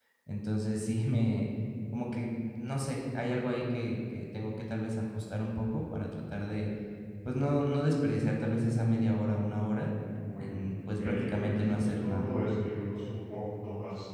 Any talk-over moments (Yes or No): Yes